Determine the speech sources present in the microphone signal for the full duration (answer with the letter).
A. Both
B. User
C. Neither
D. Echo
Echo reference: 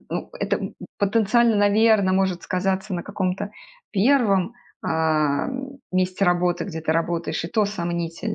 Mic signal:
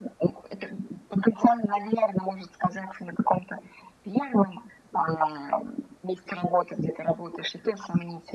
D